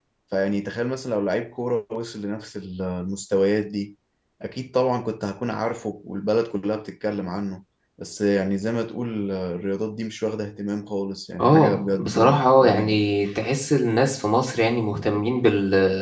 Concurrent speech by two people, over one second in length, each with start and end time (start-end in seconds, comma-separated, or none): 11.4-13.0